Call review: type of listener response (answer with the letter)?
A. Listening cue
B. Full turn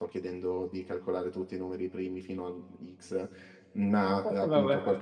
A